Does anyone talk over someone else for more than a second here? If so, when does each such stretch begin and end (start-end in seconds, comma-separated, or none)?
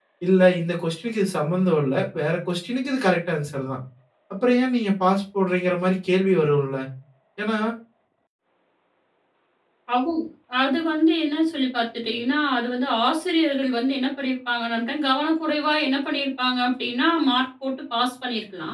none